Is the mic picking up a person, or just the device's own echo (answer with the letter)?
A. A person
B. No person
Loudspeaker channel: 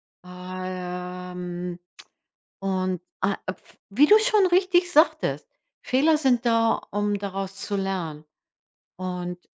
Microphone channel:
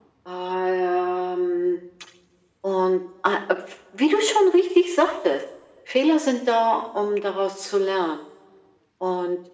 B